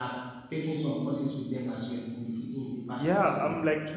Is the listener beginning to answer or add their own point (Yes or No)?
Yes